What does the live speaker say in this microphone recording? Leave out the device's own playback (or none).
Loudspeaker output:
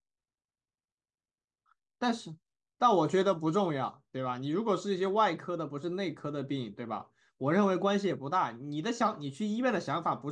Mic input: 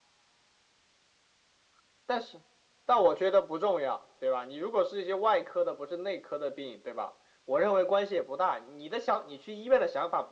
none